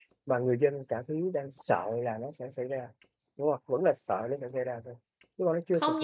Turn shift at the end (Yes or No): Yes